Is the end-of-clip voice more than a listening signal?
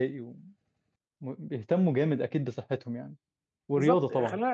Yes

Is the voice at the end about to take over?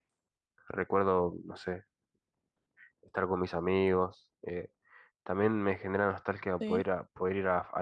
No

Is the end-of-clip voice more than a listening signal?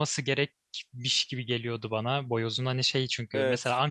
No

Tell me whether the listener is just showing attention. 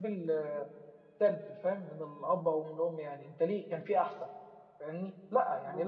Yes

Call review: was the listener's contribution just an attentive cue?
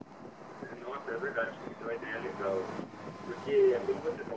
Yes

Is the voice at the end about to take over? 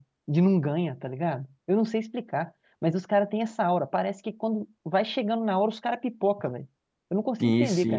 Yes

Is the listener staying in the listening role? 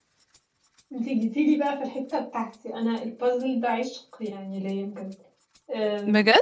Yes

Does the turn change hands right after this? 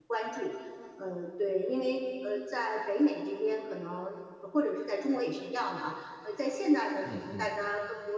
No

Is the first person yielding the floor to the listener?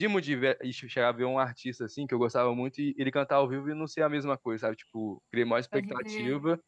No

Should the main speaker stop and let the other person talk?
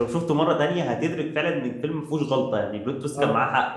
Yes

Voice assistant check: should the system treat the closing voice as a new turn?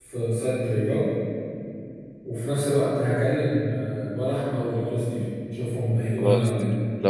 Yes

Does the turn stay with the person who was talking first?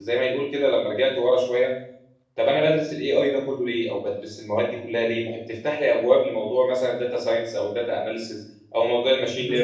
Yes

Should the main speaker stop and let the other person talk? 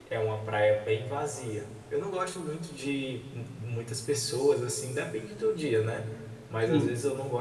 No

